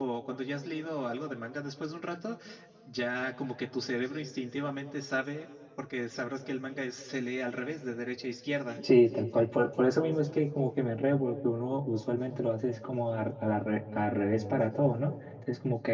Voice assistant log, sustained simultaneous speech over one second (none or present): none